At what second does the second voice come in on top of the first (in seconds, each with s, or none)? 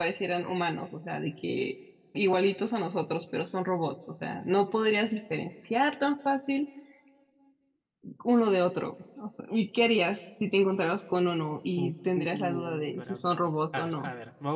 11.8 s